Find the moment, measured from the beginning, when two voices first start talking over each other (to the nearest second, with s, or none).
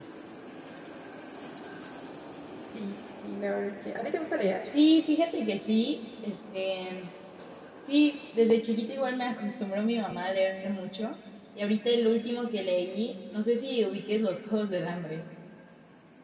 none